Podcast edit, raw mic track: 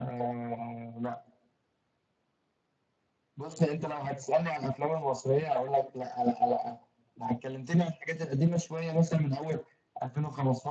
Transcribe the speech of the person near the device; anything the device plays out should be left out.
none

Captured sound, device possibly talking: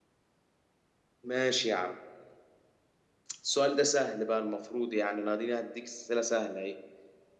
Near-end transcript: none

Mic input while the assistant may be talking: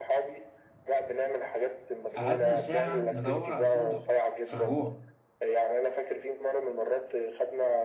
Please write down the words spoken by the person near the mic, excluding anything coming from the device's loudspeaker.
قعدنا ساعه ندور على الفندق في الرجوع

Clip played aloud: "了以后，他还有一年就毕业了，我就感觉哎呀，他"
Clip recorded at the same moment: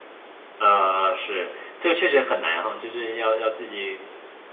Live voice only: 呃，是，这个确实很难哈，就是要要自己

